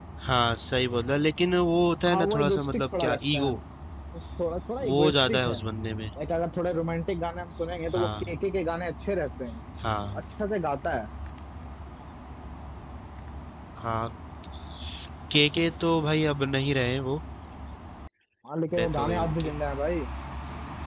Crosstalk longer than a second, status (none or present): present